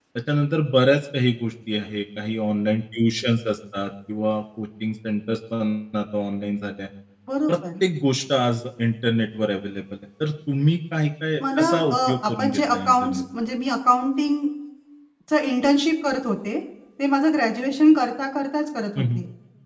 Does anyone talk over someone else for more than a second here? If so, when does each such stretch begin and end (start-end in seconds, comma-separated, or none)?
11.4-13.2